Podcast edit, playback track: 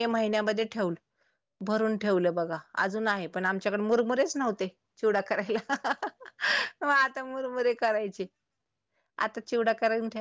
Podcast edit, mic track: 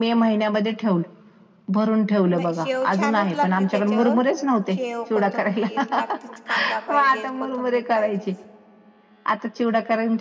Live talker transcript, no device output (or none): नाही शेव छानच लागती. त्याच्या शेव कोथंबीर लागतेच कांदा पाहिजेच, कोथंबीर पाहिजेच